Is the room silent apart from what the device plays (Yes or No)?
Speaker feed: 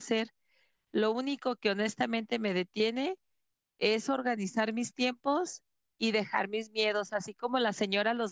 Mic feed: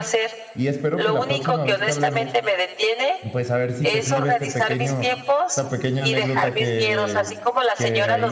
No